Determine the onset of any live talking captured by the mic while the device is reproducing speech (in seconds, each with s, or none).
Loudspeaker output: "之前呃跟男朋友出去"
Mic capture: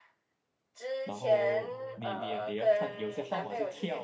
1.0 s